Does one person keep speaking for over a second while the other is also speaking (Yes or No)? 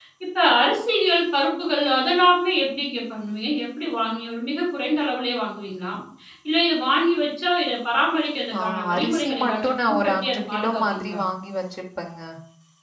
Yes